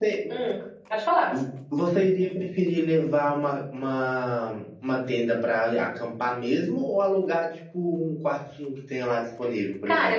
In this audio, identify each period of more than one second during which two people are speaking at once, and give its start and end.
none

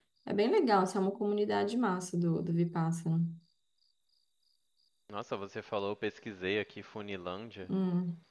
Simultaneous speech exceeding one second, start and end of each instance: none

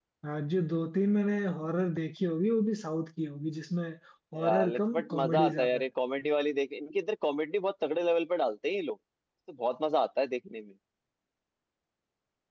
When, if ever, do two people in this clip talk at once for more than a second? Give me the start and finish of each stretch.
4.4-5.9

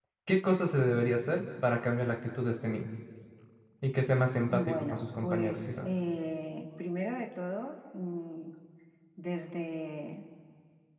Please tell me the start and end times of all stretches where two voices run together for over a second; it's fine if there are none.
4.5-5.9

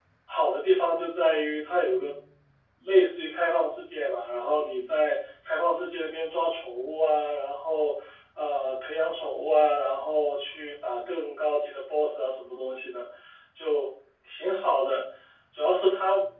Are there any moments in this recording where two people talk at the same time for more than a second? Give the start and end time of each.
none

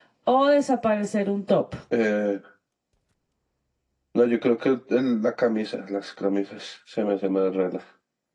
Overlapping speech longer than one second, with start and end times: none

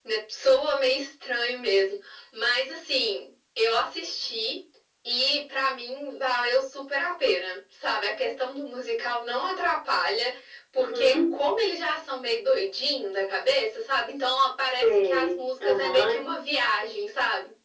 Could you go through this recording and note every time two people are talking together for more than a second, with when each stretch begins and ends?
14.7-16.2

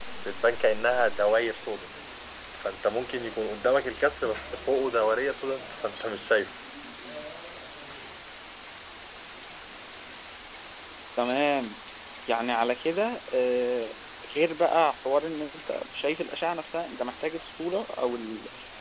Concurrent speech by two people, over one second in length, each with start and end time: none

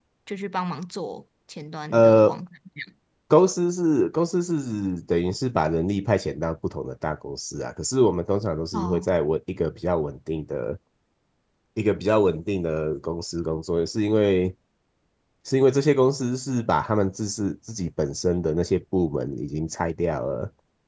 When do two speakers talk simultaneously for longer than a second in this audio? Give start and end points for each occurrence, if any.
none

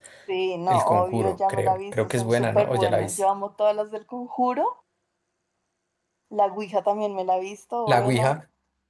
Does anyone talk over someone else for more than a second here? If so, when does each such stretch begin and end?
0.7-3.2

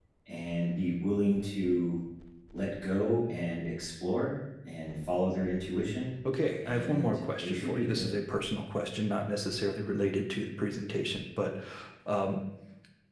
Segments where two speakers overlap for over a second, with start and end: 6.6-8.1

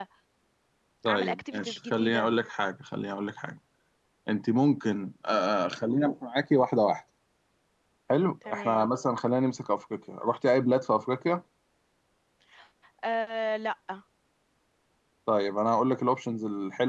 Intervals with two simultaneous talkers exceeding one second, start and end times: 1.1-2.3

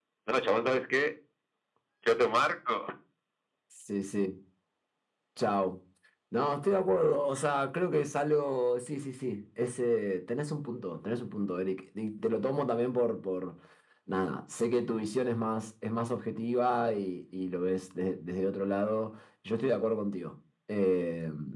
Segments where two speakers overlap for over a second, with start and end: none

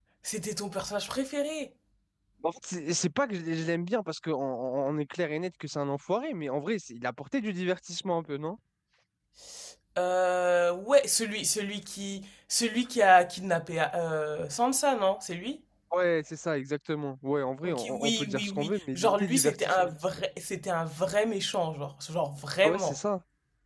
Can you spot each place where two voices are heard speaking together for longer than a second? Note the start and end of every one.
17.6-19.9

